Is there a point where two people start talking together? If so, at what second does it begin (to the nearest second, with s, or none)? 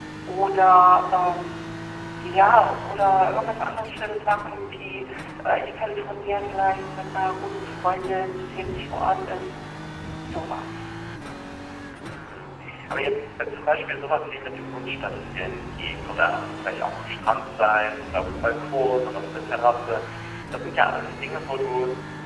none